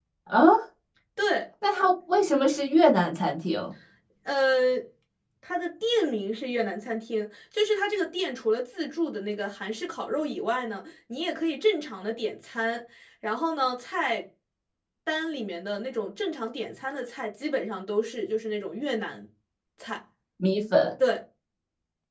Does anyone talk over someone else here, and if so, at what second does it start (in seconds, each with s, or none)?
none